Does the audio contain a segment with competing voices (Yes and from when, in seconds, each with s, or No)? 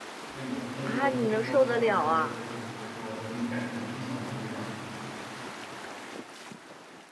Yes, from 0.8 s